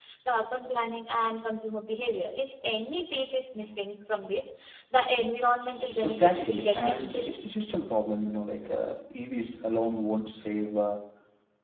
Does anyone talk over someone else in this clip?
Yes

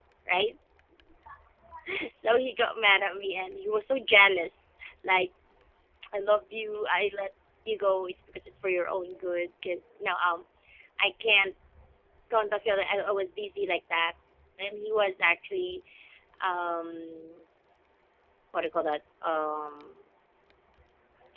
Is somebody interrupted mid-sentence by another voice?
No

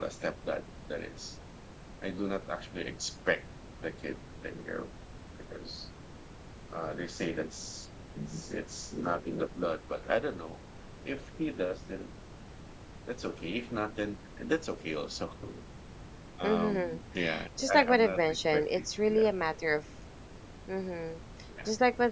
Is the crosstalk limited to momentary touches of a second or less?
No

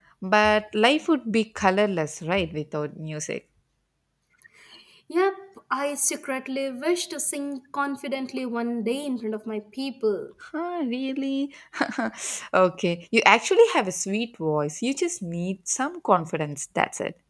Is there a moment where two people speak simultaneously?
No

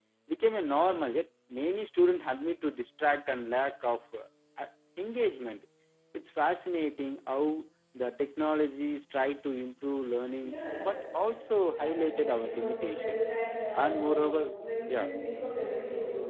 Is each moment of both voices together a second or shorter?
No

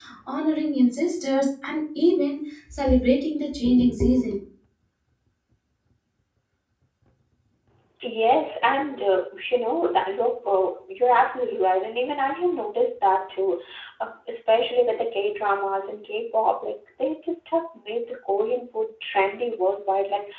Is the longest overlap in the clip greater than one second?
No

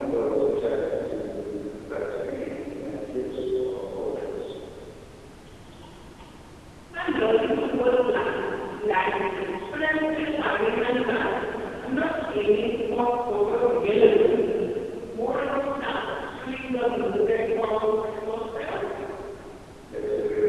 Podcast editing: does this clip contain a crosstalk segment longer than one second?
No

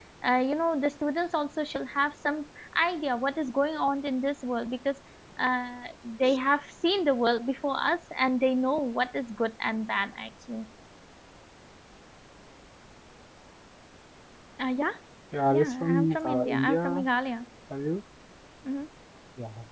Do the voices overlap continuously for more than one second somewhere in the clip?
Yes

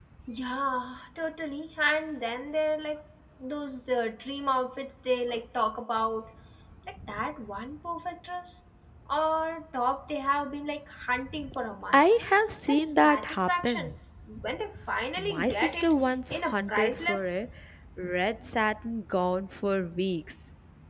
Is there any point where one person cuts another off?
Yes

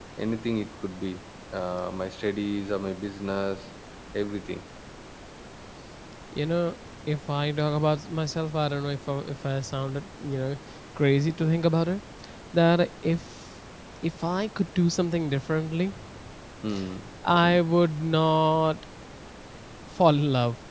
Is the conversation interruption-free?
Yes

